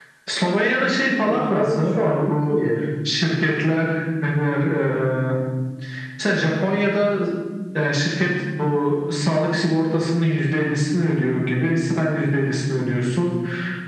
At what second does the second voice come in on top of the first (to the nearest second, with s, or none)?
1 s